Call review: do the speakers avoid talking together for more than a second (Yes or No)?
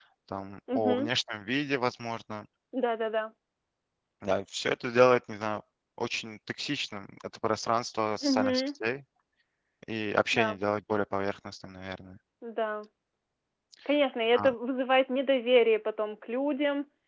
Yes